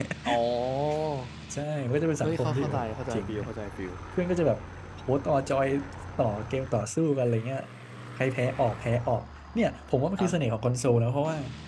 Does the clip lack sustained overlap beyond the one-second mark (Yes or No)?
No